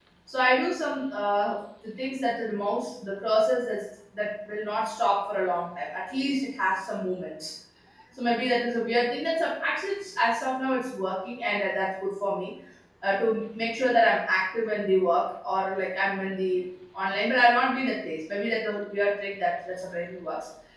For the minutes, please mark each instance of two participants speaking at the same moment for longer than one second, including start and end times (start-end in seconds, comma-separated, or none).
none